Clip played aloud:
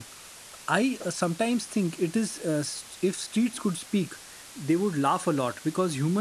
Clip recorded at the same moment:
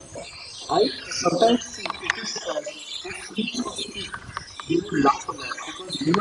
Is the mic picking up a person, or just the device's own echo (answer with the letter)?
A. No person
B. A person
A